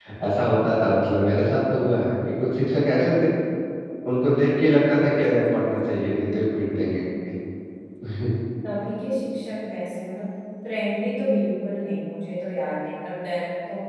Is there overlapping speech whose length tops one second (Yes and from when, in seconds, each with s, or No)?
No